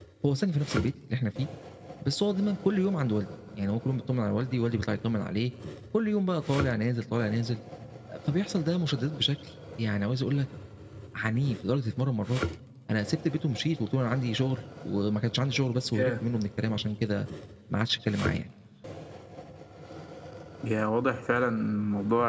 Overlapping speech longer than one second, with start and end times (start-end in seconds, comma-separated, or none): none